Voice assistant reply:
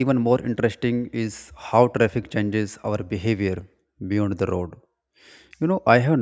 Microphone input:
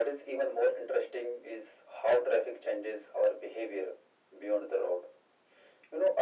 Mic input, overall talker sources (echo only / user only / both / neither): echo only